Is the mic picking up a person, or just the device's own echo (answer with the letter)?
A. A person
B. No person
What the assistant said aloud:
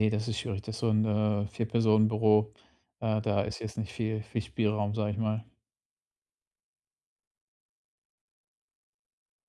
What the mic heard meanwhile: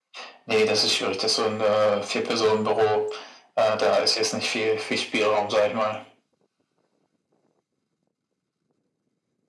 B